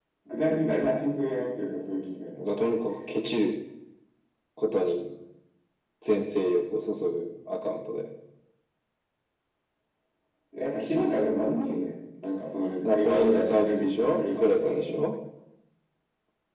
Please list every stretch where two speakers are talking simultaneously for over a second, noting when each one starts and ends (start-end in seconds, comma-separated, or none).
12.8-15.0